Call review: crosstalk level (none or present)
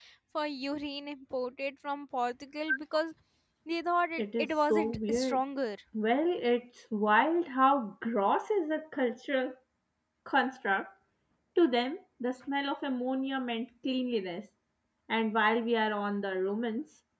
present